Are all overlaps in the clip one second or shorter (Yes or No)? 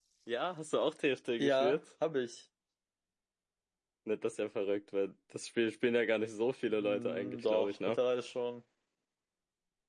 No